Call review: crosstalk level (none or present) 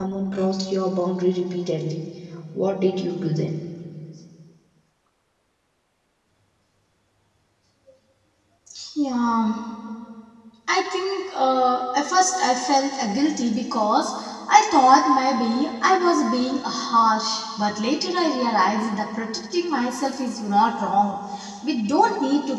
none